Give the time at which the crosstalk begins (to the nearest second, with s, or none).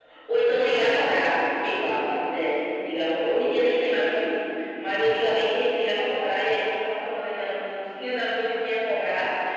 none